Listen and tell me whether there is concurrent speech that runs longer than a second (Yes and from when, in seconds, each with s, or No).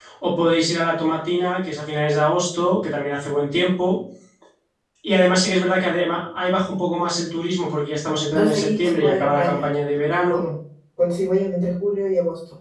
Yes, from 8.3 s